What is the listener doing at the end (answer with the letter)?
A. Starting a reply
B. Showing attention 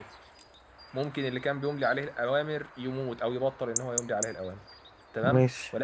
B